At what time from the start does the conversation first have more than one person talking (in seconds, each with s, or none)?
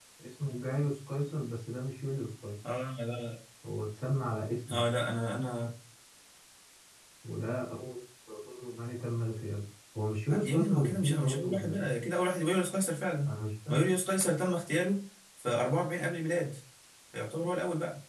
10.3 s